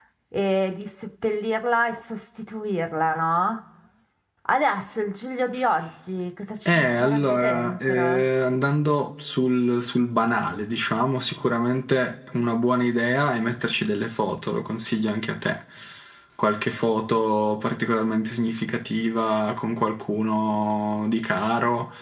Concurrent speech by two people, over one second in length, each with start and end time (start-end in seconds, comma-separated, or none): 6.7-8.2